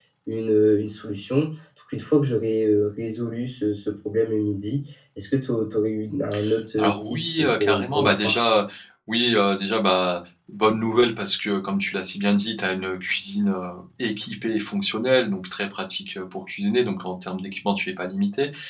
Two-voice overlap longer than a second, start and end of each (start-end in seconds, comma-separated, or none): 6.8-8.4